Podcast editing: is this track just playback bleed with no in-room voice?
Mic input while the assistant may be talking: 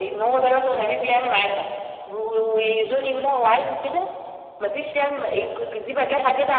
Yes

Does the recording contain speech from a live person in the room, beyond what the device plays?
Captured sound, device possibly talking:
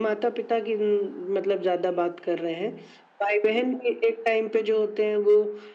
No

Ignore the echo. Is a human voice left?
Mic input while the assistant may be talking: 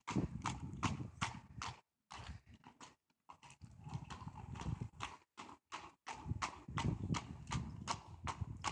No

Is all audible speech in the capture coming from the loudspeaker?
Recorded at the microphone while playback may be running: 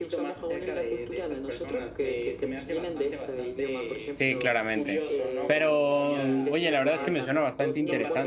No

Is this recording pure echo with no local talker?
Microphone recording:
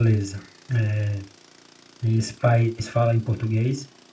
No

